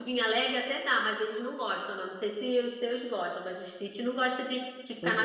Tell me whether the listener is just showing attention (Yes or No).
No